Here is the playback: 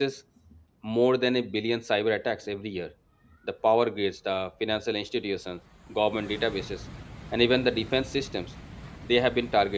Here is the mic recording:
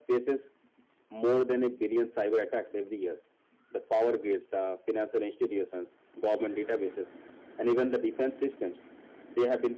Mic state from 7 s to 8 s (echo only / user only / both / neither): echo only